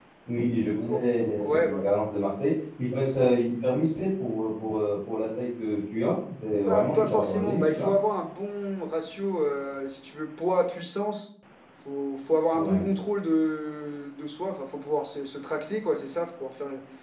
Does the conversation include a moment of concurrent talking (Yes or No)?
Yes